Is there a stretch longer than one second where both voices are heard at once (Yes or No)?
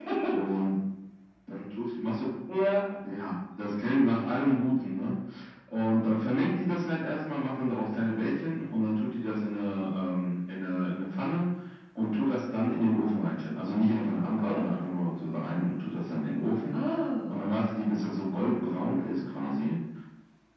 No